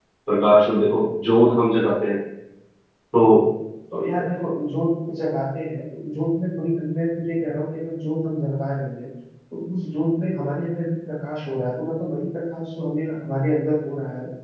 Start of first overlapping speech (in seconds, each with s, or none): none